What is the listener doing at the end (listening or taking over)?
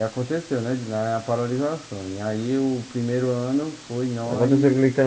taking over